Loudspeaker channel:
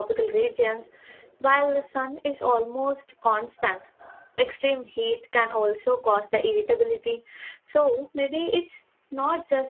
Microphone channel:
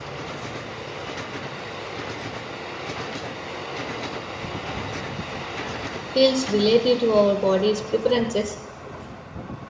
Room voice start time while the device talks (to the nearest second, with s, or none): 6 s